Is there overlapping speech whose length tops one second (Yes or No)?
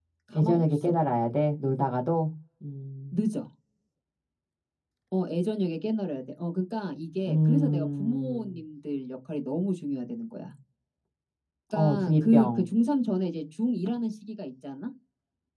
Yes